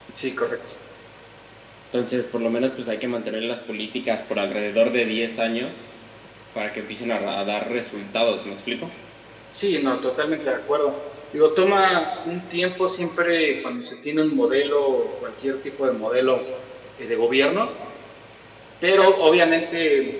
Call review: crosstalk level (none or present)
none